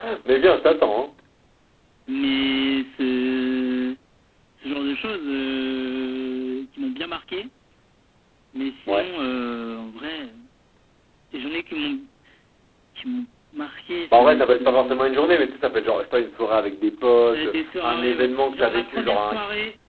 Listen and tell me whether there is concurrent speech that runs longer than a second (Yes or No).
Yes